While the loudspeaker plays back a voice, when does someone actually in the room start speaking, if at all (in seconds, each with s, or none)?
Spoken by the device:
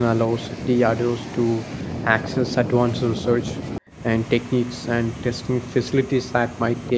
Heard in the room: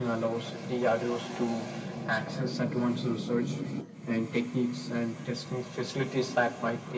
none